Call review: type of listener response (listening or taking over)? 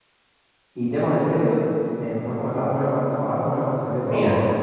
taking over